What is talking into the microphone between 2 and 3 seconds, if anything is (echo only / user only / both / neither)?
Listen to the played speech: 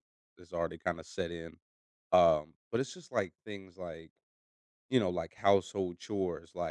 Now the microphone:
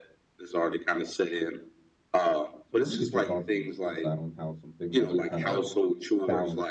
both